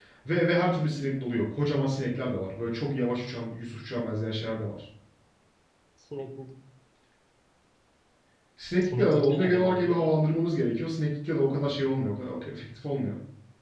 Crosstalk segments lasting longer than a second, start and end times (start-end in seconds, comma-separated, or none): 8.8-10.1